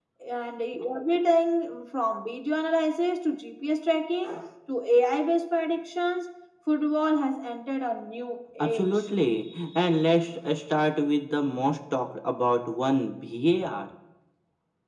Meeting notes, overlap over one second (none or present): none